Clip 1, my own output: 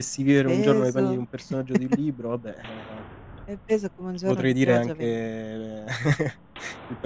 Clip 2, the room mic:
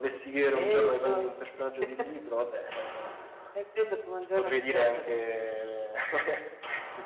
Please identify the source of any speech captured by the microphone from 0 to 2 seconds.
echo only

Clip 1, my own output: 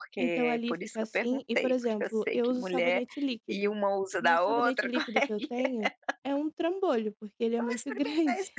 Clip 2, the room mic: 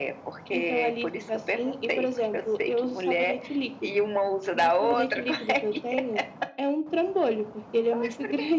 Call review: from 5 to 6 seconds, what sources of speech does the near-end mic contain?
echo only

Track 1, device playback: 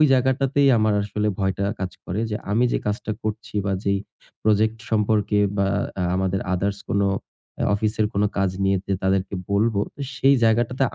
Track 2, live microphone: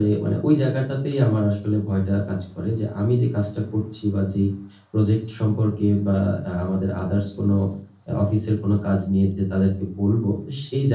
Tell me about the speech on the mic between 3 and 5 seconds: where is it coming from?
echo only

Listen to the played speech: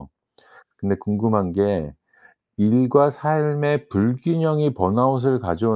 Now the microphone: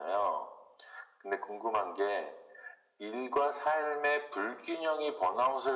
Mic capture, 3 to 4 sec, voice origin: echo only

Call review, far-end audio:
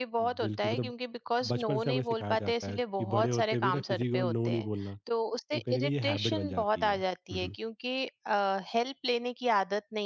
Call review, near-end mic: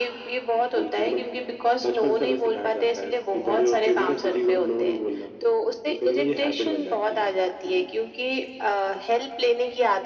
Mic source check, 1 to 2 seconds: echo only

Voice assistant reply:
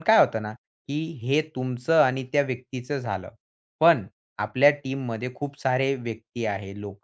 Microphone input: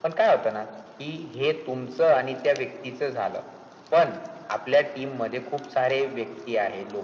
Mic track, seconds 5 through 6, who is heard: echo only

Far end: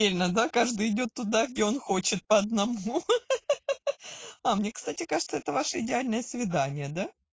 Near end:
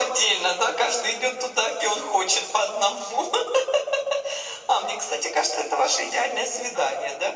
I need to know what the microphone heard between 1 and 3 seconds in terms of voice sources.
echo only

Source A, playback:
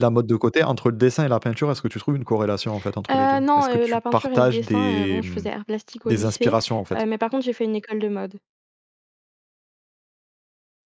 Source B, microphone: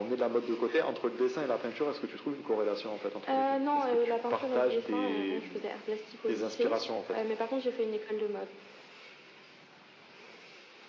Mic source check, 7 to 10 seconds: echo only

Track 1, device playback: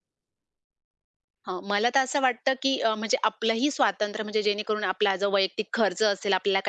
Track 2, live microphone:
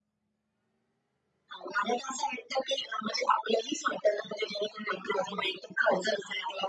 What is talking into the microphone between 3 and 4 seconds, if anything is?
echo only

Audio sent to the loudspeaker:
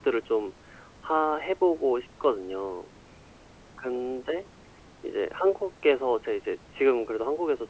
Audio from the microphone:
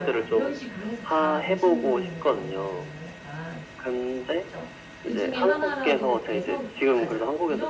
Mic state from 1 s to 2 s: both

